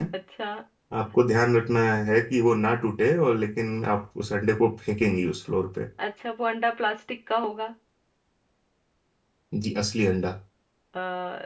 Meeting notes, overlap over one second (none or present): none